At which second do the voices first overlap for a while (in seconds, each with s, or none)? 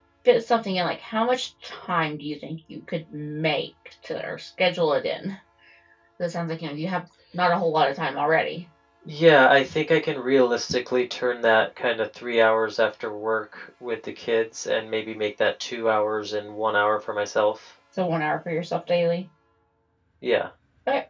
none